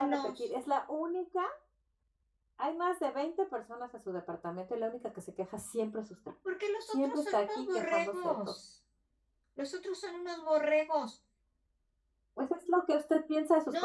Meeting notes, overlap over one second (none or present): present